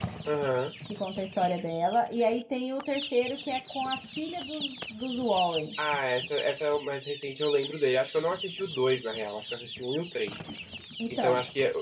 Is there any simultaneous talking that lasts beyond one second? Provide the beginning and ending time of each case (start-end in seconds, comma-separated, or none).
none